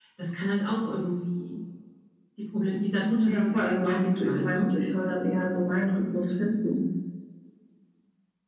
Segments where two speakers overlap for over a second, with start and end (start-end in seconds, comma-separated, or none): 3.2-4.6